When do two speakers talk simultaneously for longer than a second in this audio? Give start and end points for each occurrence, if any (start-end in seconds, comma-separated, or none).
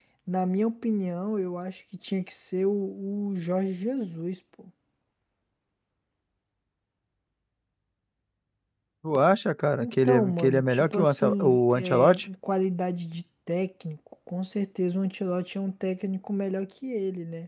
9.8-12.3